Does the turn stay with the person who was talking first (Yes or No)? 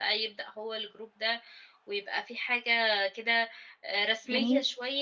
Yes